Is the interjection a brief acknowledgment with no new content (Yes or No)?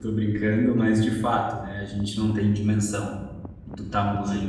Yes